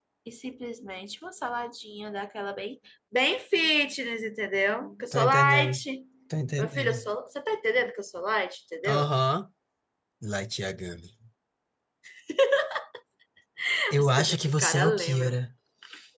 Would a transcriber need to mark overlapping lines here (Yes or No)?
Yes